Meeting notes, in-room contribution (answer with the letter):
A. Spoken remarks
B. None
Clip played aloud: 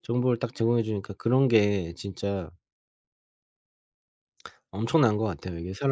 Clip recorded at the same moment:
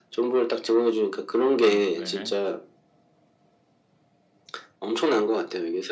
A